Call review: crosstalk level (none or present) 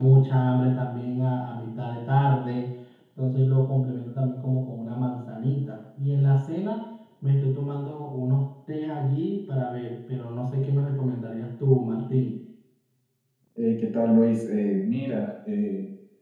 none